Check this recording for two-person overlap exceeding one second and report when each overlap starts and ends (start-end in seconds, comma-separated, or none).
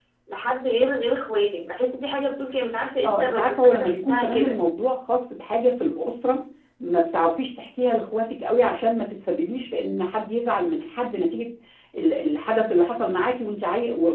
3.0-4.6